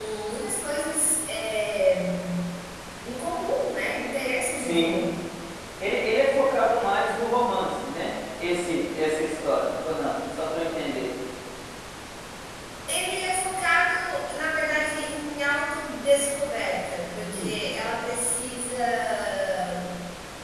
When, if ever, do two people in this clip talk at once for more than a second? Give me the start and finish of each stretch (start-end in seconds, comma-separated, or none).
none